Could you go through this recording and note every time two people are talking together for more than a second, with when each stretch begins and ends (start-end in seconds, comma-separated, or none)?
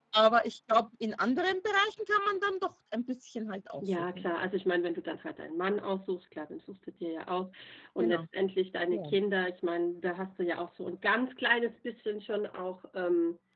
none